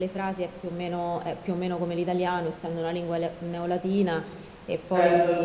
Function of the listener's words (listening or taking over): listening